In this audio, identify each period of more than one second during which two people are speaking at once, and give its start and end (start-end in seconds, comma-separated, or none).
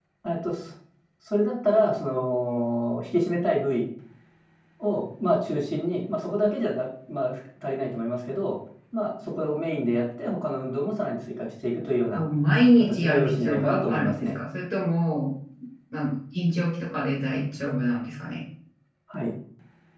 12.8-14.4